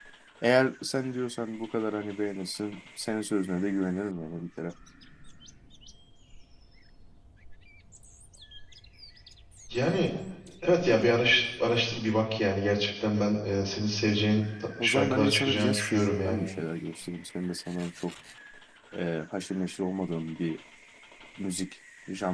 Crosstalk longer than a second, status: present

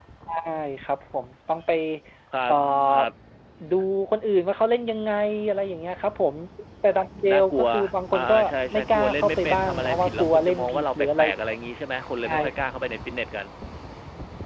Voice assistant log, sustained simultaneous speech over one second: present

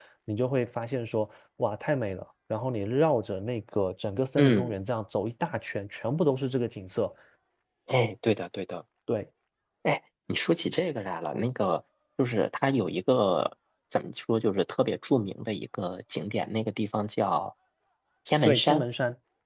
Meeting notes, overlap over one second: none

